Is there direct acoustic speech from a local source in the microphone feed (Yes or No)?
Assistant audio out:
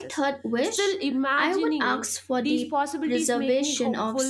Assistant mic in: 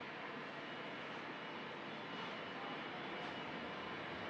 No